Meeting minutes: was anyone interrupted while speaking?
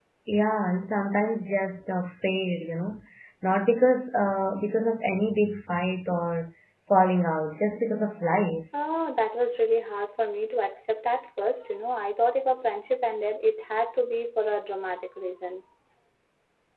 No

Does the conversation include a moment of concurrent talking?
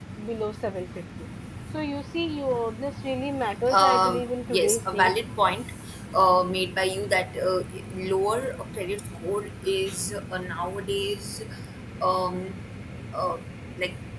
Yes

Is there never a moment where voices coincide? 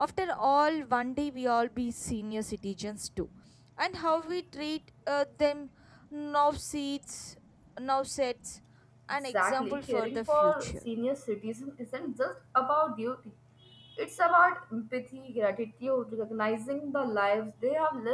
No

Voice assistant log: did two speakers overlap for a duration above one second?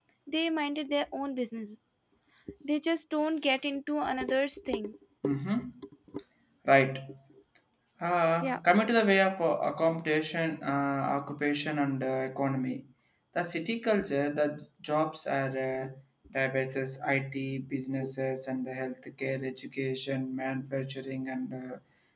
No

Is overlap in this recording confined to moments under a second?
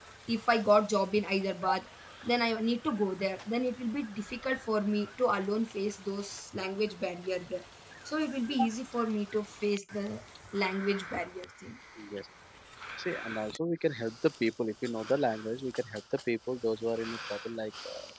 Yes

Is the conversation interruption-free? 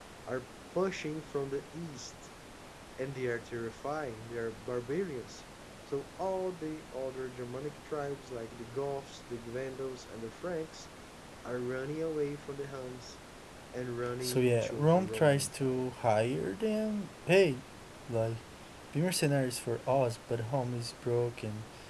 No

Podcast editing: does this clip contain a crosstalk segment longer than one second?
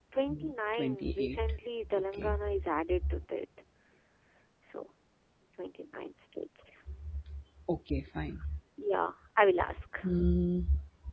Yes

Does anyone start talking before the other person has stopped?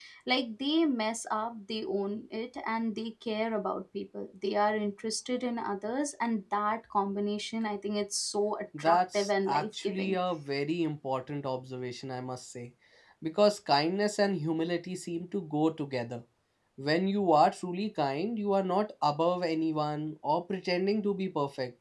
Yes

